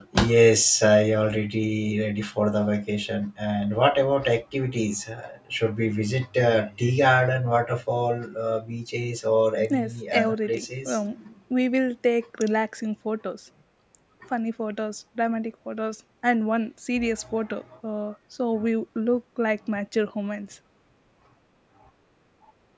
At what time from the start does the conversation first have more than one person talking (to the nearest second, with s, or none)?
10 s